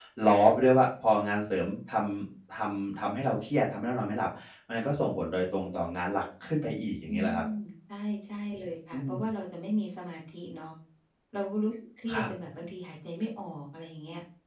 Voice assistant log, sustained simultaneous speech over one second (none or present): none